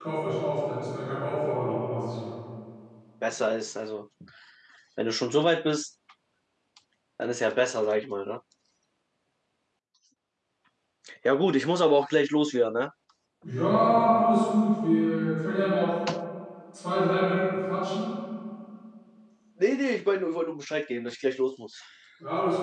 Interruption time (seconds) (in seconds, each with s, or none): none